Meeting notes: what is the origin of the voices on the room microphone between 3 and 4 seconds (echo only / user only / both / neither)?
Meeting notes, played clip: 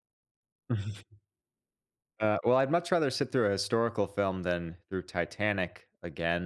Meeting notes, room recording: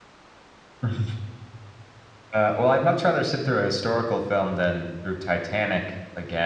echo only